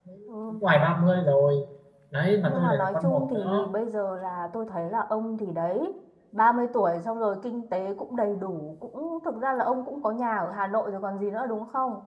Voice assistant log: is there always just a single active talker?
No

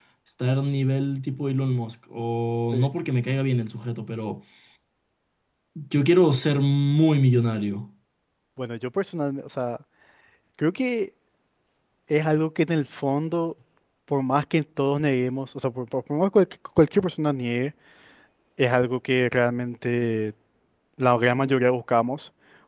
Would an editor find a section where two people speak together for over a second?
No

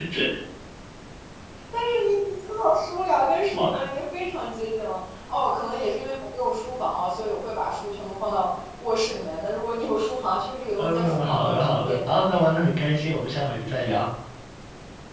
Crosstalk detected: Yes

